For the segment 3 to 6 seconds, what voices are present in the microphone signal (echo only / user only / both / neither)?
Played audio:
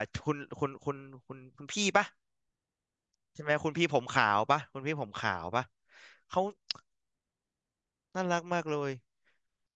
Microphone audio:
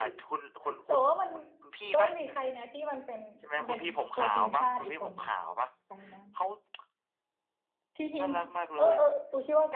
both